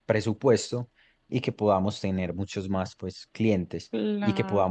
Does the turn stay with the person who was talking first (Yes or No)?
Yes